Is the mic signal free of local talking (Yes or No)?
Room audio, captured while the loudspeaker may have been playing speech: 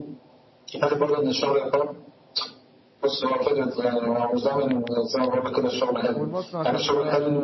No